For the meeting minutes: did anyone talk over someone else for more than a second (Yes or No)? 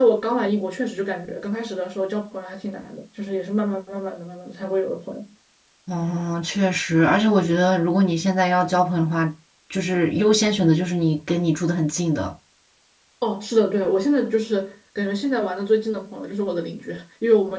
No